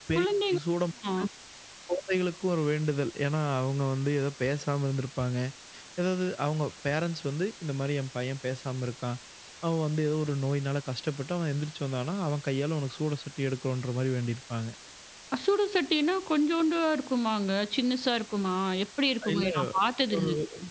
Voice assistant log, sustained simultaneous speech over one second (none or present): none